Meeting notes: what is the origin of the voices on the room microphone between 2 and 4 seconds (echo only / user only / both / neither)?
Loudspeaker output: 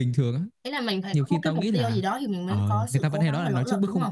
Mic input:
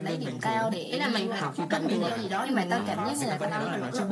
both